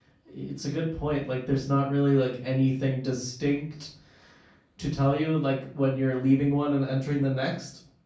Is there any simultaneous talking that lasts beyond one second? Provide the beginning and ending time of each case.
none

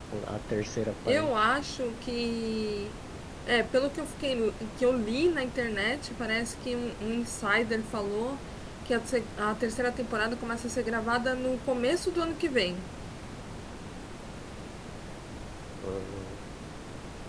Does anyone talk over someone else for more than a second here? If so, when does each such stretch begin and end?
none

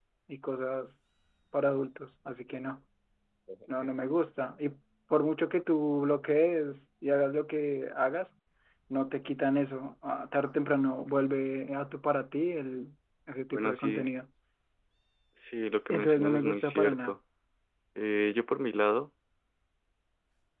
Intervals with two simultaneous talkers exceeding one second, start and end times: 15.9-17.2

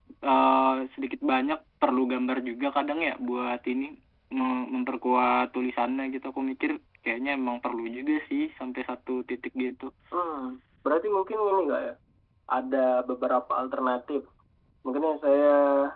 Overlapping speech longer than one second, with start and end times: none

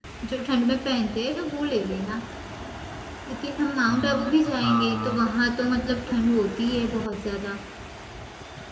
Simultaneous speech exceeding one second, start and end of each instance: 3.9-5.2

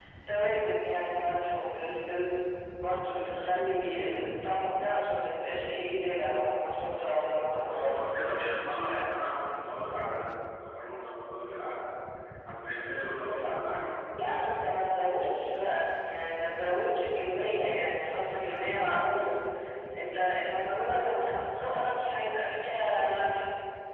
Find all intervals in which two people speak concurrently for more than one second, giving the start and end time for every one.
none

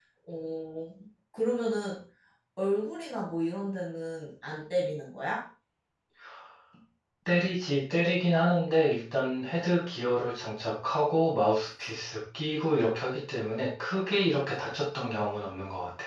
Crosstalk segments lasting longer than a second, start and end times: none

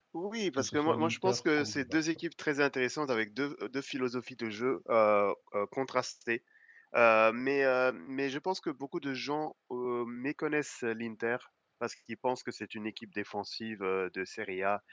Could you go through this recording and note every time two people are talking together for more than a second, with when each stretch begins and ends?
0.6-2.2

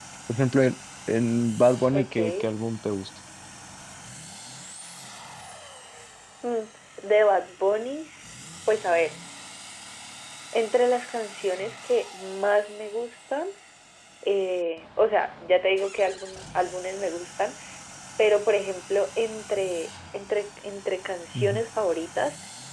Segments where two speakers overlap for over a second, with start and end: none

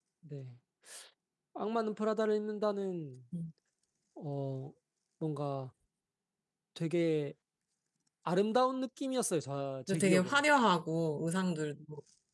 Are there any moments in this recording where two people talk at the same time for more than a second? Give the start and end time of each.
none

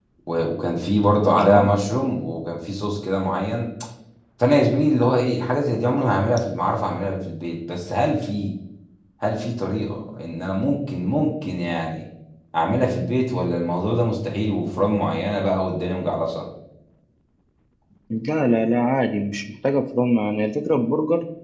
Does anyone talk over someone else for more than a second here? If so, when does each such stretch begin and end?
none

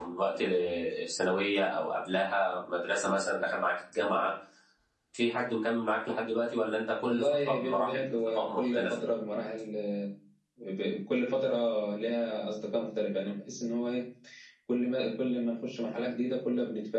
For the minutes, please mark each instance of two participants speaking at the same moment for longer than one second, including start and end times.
7.0-9.0

